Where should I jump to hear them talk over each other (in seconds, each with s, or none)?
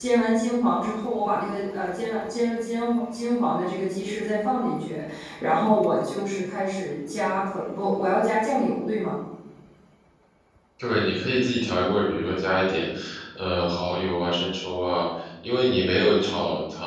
none